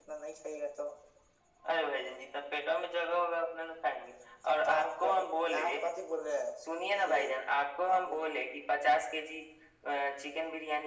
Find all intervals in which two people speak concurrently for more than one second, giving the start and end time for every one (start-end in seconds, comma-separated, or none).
none